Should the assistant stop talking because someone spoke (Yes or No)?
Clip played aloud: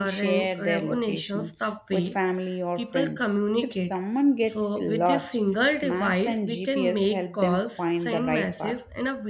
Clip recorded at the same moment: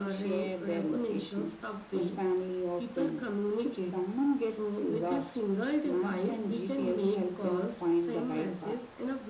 No